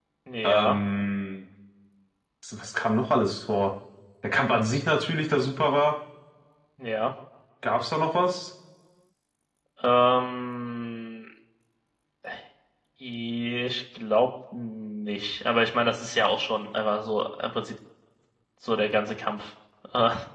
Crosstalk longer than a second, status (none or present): none